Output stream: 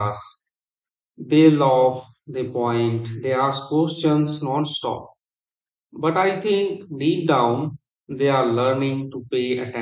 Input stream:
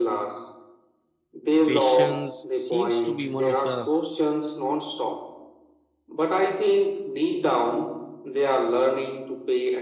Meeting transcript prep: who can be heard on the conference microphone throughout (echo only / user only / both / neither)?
both